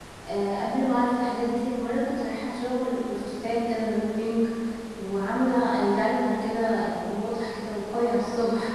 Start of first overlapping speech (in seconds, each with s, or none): none